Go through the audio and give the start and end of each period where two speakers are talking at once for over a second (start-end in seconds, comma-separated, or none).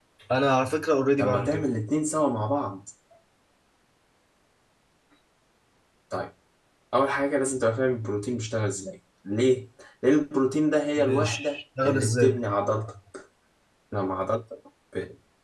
11.0-12.4